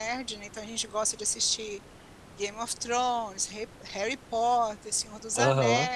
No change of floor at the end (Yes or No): Yes